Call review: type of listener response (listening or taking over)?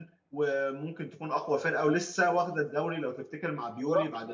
listening